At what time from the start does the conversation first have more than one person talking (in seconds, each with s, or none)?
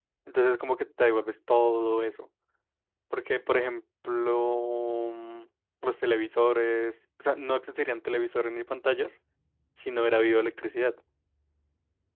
none